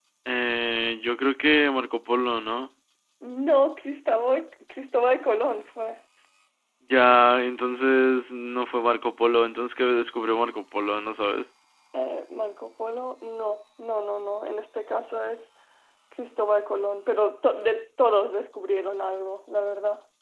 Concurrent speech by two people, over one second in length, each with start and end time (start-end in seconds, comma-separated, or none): none